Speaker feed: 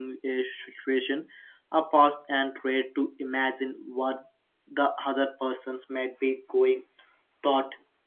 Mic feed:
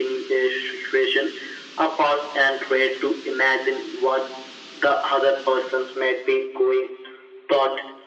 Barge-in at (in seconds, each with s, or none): none